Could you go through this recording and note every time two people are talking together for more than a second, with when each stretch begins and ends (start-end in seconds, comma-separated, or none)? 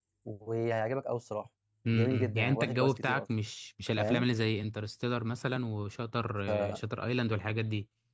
1.9-3.2